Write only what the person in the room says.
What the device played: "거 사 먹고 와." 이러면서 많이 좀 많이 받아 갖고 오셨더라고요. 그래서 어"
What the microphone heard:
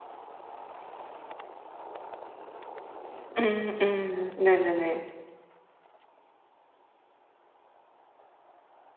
음 음 네네네.

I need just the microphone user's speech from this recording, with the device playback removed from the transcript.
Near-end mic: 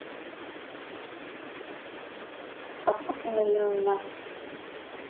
పక్కపక్కల ఇల్లలున్న

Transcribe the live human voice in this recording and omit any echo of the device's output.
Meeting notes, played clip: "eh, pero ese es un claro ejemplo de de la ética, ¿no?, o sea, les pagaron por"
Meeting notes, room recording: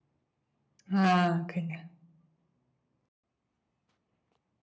Ah, genial.

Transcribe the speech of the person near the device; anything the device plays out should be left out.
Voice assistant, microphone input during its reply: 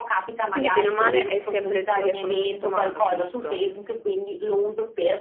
Quindi bene o male hai sempre il telefono sotto mano, giusto?

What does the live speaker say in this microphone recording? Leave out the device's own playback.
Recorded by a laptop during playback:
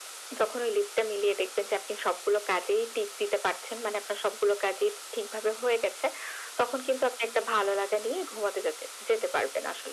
none

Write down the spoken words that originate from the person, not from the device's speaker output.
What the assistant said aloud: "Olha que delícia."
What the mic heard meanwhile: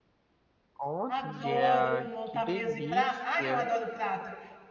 adoro montar mesa e prato, ai eu adoro prato,

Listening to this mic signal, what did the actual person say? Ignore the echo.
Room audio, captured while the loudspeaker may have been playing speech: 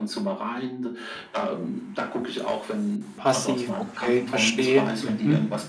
Passiv, okay, verstehe. Mhm.

